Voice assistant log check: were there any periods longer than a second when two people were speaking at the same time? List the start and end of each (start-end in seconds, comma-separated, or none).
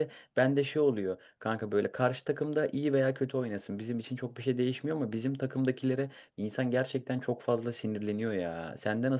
none